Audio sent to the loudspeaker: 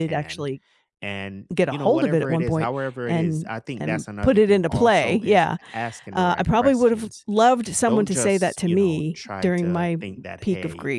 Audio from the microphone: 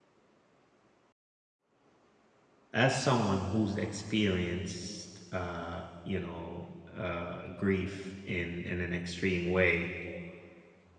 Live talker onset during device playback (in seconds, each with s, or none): 2.7 s